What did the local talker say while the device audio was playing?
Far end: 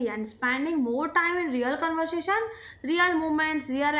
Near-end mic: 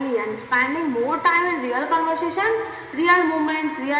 none

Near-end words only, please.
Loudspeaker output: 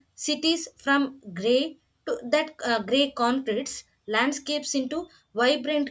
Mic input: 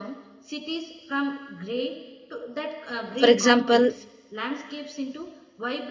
For example,

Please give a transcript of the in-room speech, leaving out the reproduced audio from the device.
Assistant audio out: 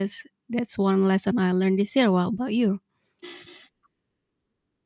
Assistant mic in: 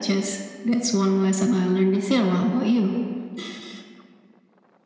none

